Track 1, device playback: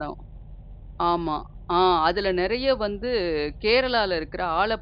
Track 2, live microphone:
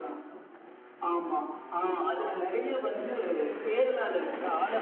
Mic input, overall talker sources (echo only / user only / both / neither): echo only